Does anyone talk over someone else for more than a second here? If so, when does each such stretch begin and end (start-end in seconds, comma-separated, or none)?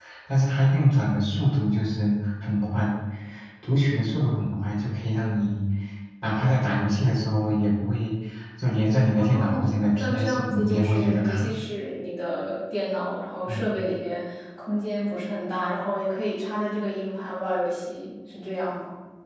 9.2-11.5